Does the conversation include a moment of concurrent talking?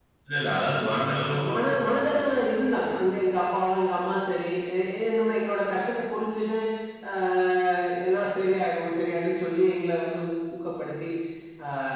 Yes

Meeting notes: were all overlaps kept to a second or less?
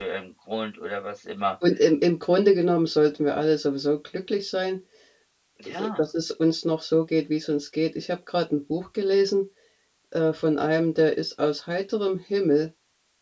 Yes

